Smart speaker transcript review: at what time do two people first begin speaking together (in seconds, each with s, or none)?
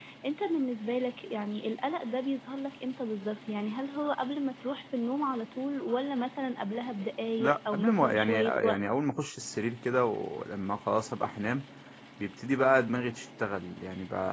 7.4 s